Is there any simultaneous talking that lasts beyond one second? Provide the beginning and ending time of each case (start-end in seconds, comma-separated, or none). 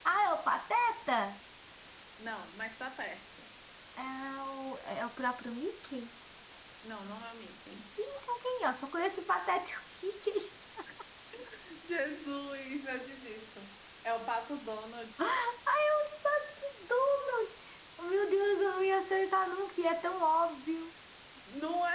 none